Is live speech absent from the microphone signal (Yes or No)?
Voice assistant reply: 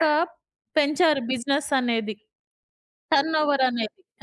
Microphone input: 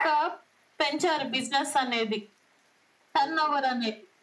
Yes